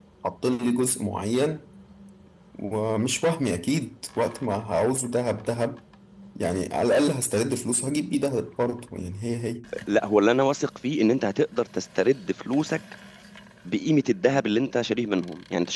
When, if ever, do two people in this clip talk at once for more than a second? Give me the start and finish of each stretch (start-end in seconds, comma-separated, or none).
none